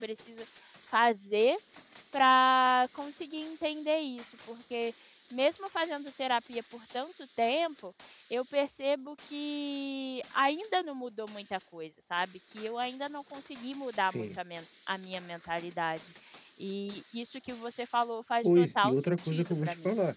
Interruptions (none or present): present